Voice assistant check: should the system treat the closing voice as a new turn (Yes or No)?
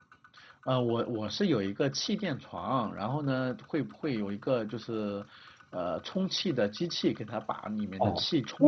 Yes